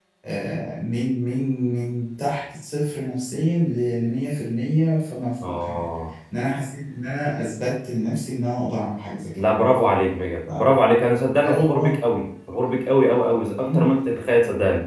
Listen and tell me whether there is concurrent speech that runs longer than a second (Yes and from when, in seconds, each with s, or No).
No